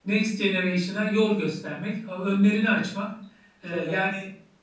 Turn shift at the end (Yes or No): No